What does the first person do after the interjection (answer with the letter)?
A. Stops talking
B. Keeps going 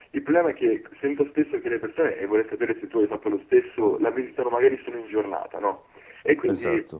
B